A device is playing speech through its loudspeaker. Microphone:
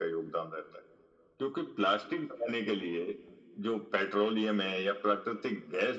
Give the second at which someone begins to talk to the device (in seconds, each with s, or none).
none